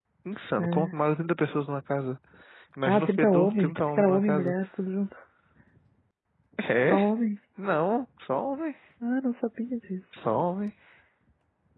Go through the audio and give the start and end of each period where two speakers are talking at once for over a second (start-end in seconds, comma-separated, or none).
2.8-4.5